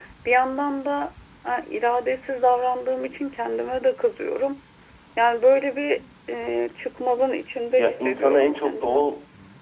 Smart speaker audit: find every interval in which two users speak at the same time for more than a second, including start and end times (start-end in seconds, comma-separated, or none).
7.8-9.1